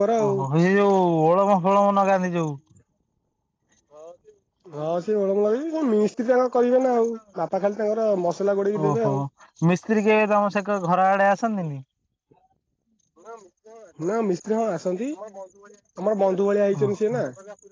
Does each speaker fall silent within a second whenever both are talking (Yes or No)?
Yes